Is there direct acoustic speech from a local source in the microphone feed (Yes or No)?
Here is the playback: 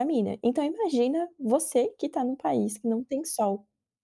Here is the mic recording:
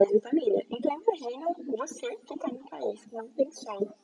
No